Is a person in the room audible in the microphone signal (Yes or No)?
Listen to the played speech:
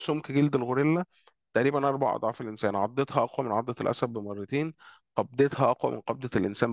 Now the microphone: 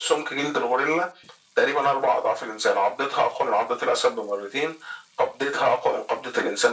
No